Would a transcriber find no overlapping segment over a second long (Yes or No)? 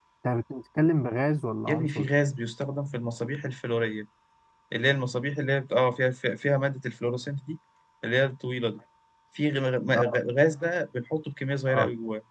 Yes